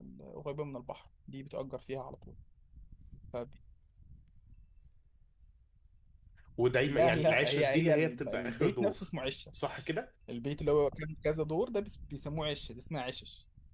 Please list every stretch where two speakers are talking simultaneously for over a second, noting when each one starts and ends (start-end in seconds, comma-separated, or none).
6.9-9.0